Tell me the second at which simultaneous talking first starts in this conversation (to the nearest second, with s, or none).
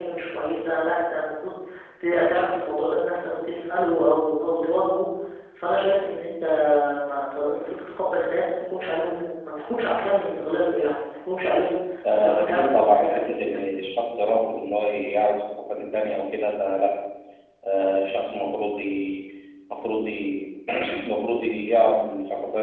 12 s